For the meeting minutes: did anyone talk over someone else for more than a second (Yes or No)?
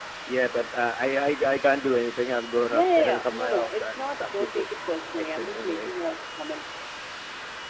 Yes